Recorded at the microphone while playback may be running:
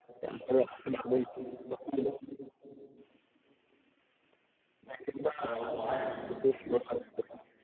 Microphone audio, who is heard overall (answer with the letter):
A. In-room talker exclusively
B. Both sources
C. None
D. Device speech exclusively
B